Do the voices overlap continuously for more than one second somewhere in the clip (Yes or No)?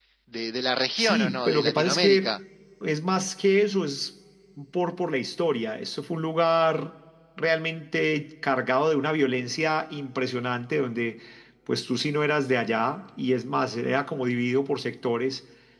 Yes